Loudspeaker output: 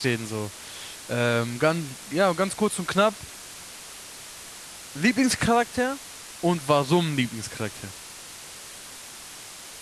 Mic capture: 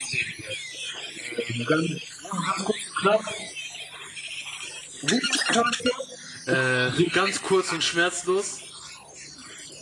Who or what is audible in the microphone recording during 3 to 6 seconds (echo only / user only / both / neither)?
echo only